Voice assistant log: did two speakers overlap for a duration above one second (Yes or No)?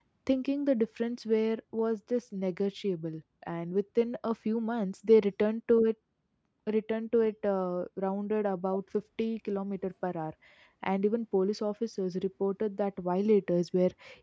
No